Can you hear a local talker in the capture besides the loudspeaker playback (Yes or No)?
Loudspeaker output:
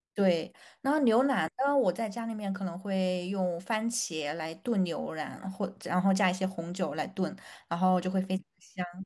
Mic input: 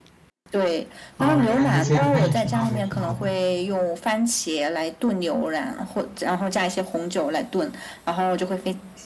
Yes